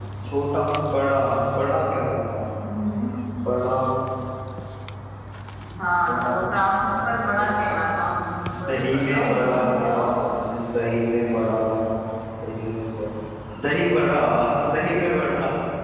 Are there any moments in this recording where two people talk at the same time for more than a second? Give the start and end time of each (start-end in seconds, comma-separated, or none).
6.1-7.8, 8.7-10.1